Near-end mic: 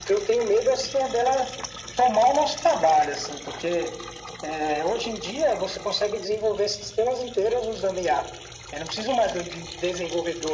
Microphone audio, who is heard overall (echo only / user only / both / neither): echo only